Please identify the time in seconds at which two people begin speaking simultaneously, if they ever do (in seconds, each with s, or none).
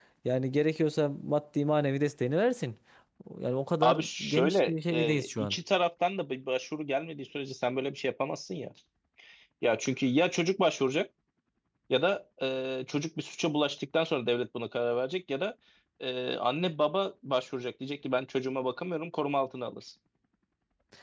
3.8 s